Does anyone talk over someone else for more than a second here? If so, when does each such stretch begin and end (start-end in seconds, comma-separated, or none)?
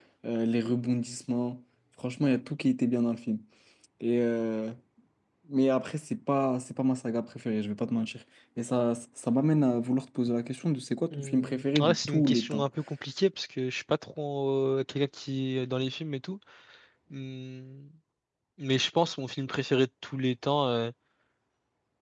11.1-12.7